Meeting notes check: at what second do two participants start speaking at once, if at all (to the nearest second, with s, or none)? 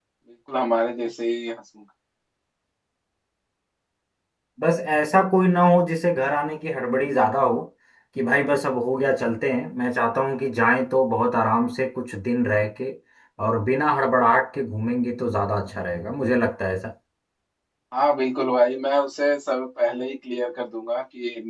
none